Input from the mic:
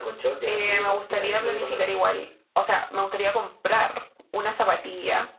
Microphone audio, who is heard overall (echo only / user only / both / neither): echo only